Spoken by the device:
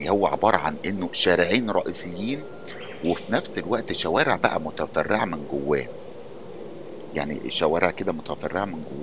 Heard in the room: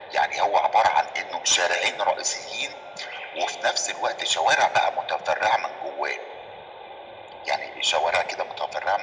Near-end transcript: none

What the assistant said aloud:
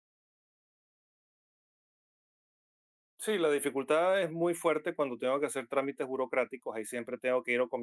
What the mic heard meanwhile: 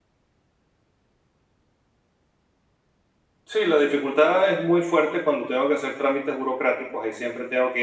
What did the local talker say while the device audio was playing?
none

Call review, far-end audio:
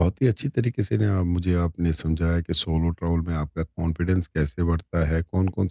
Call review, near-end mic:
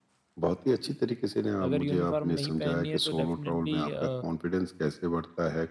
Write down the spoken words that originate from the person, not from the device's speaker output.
अगर यूनिफ़ॉर्म नहीं पहननी है तो डेफ़िनेटली अ,

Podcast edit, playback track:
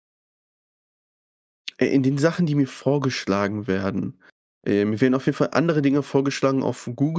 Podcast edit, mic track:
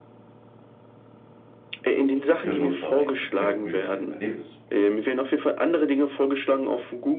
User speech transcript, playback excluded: ihren Nutzern ein bestmögliches Erlebnis zu bieten.

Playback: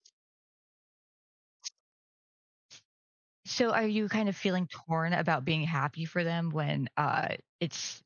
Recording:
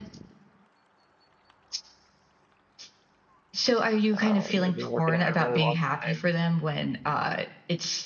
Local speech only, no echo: Um, I've been working at it a really long time.

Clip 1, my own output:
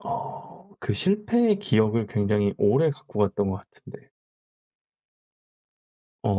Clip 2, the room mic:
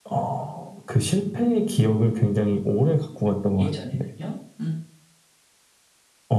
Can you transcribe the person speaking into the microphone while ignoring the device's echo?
예전에는요? 음.

